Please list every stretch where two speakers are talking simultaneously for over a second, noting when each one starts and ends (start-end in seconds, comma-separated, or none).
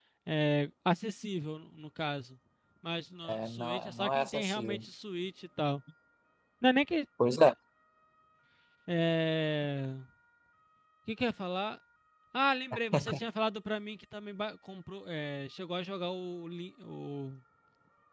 3.3-4.8